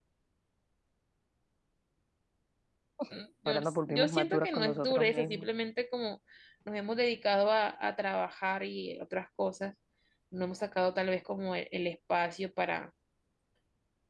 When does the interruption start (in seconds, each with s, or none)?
3.5 s